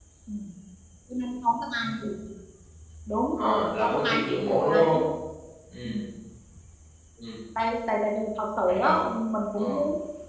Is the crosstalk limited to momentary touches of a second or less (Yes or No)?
No